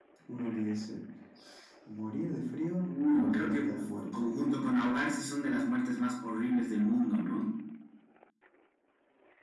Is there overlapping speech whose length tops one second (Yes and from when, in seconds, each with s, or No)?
Yes, from 2.9 s